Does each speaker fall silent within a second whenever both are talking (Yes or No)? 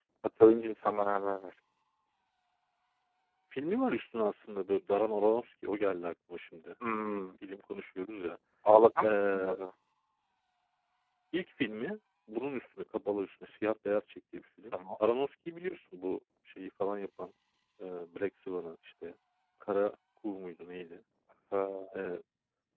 Yes